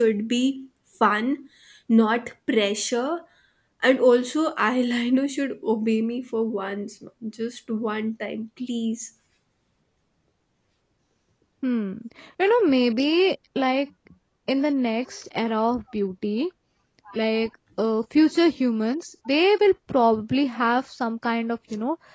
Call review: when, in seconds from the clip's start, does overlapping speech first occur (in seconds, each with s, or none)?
none